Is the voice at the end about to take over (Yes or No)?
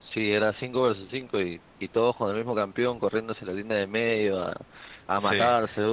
No